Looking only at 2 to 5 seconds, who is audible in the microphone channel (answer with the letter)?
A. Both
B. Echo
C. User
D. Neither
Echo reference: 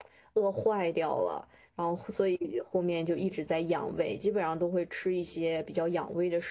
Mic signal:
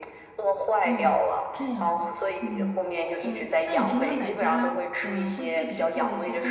A